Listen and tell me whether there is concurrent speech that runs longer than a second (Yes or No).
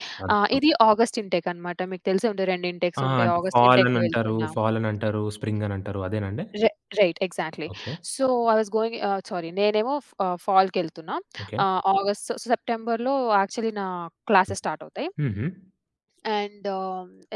Yes